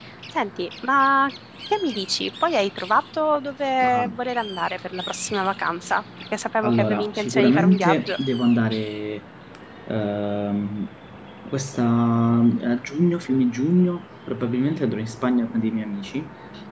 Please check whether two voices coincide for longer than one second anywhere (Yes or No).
Yes